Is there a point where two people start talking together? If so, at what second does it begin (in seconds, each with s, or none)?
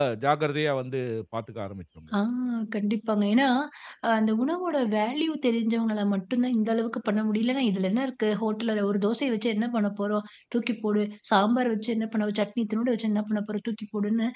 none